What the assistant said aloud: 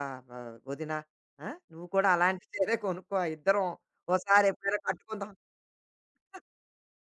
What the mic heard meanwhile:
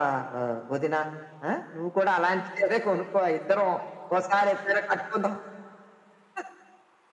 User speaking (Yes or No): No